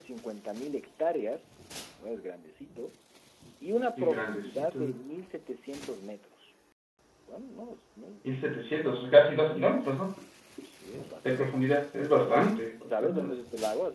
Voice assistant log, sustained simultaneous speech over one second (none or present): present